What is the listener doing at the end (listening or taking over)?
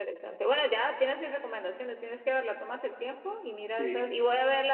listening